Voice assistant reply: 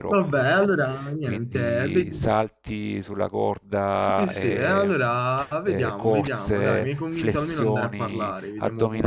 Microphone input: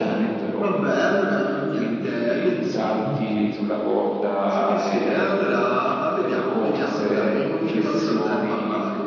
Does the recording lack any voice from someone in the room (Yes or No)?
No